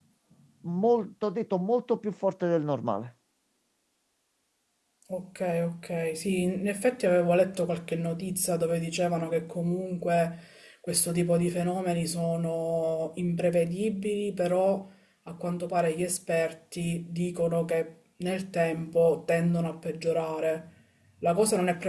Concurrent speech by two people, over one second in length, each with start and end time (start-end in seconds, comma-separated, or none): none